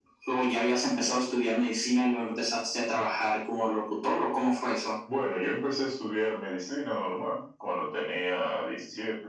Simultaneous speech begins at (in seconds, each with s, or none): none